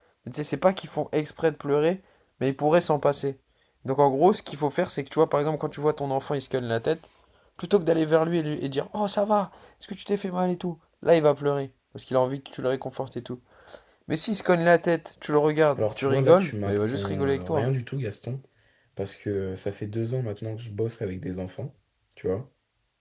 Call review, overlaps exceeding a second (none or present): present